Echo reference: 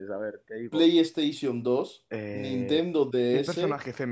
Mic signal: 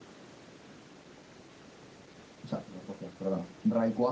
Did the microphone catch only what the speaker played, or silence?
No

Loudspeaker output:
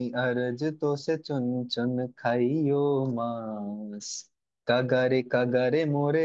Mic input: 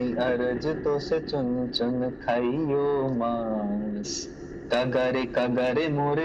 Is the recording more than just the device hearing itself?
No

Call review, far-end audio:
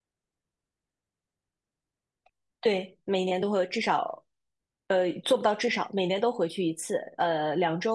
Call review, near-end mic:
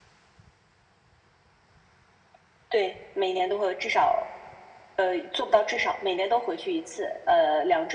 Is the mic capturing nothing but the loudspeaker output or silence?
Yes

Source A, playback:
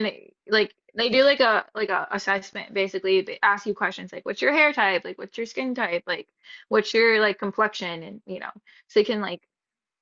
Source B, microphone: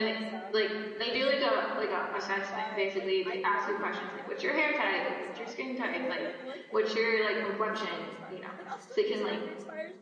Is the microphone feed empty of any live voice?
No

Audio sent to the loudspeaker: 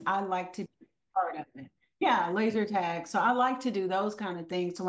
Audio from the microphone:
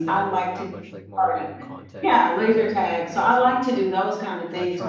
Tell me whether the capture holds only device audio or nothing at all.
No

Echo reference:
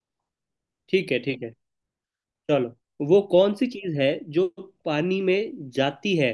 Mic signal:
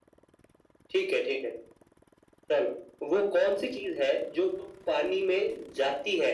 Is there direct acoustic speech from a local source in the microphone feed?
No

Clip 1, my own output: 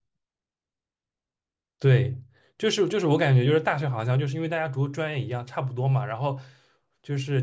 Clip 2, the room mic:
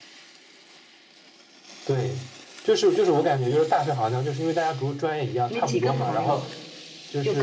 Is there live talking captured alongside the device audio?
Yes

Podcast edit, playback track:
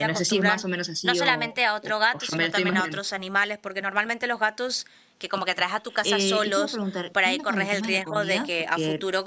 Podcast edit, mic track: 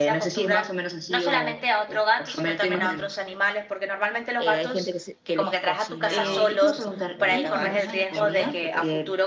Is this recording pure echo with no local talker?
No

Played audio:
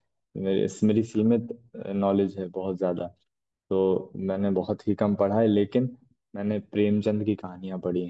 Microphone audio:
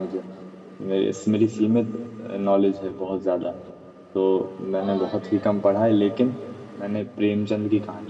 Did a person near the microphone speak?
Yes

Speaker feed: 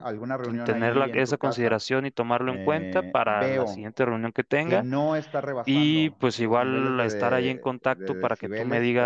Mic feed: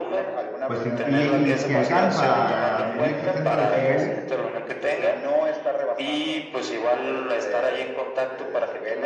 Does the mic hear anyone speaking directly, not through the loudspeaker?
Yes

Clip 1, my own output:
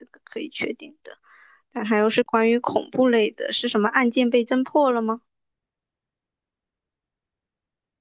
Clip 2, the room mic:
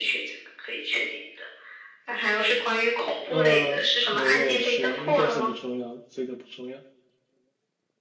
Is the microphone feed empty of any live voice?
No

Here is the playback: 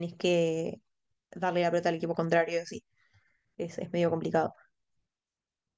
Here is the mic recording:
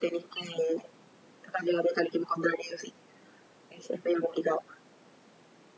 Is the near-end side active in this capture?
No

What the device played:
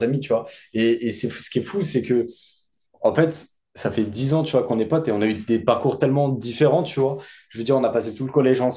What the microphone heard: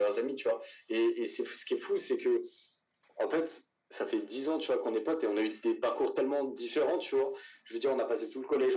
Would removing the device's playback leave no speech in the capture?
Yes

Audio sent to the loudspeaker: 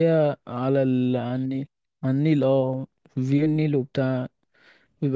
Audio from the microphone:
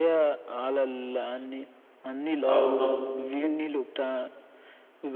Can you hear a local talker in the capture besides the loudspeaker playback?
Yes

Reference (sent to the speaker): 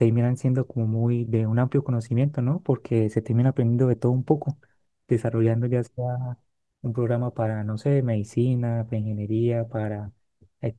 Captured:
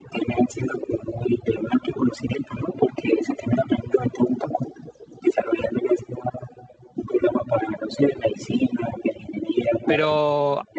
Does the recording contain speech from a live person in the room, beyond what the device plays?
Yes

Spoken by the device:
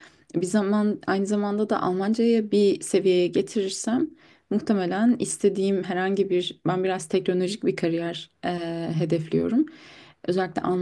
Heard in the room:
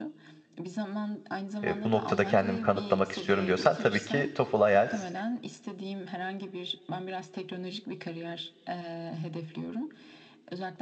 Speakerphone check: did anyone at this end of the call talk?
Yes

